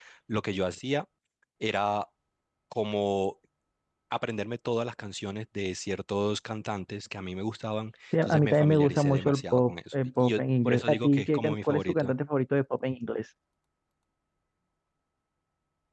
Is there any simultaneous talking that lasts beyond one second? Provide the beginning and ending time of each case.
8.2-12.1

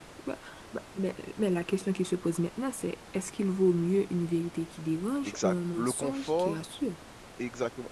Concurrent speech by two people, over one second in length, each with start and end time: 5.2-6.6

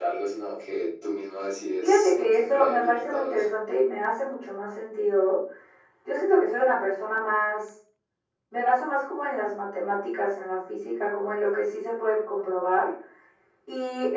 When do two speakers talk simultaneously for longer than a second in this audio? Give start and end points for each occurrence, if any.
1.8-3.5

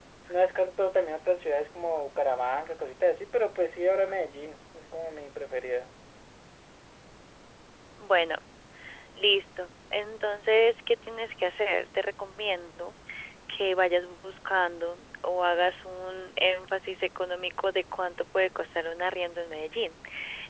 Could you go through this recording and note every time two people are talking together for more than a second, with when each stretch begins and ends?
none

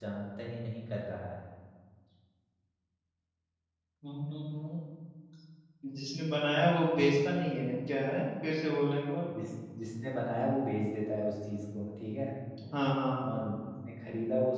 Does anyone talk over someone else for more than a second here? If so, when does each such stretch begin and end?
none

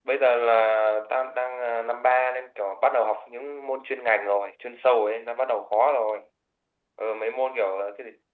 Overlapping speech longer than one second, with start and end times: none

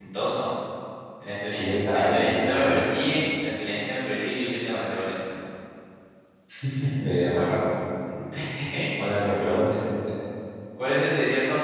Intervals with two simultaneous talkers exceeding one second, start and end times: 1.6-2.8

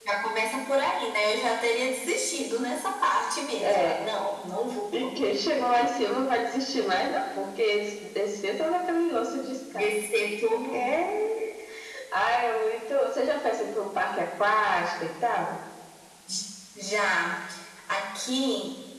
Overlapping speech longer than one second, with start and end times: none

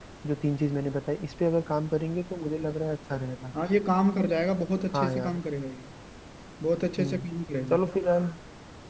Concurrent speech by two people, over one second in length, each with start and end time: none

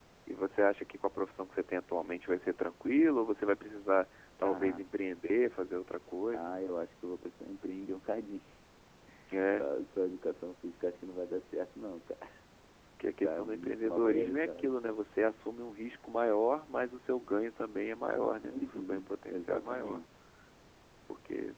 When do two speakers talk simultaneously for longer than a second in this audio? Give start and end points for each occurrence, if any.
13.2-14.7, 18.4-20.0

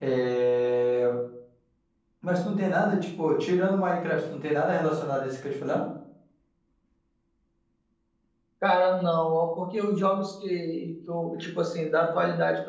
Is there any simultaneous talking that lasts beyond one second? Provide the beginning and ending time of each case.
none

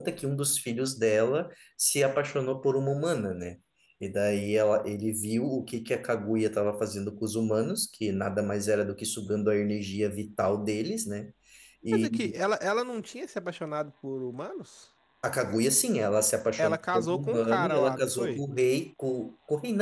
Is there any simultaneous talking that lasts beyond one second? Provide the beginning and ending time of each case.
16.6-18.4

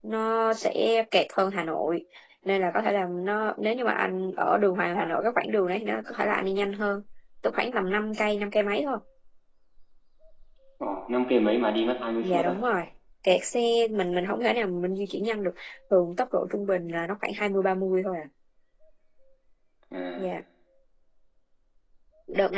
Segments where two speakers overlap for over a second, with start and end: none

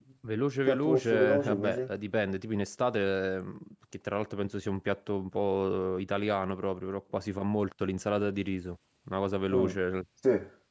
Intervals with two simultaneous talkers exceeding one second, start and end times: 0.7-1.9

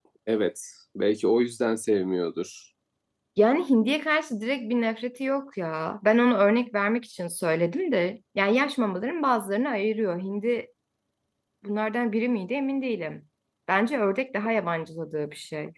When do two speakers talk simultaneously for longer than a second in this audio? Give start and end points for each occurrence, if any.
none

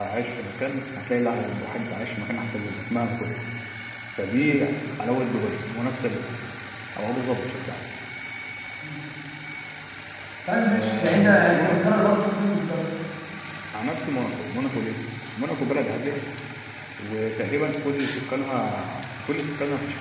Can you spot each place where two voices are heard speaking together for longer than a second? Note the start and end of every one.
10.7-11.9

